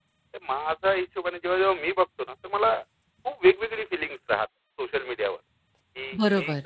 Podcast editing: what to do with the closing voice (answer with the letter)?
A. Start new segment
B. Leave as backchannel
B